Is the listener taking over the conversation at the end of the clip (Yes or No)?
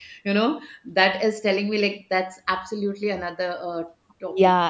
Yes